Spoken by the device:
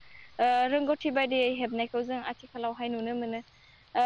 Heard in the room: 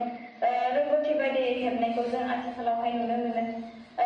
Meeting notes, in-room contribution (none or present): none